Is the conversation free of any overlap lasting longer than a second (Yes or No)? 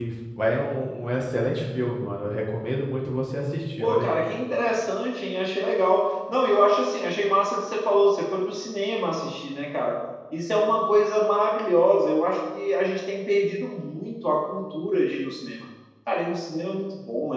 Yes